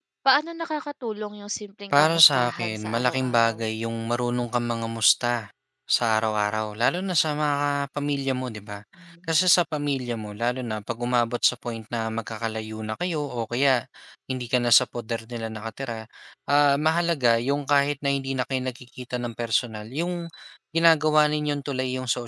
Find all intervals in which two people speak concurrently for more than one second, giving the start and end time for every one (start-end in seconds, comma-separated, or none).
1.9-3.6